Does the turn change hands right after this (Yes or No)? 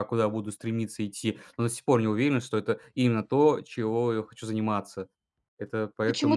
Yes